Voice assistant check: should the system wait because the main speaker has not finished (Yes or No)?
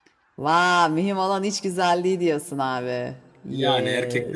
No